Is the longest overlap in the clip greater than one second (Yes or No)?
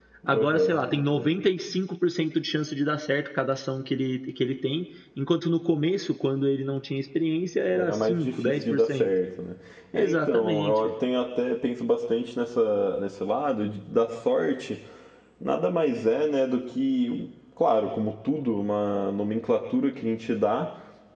Yes